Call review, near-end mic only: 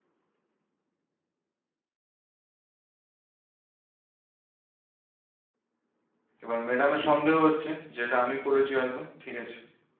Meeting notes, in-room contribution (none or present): present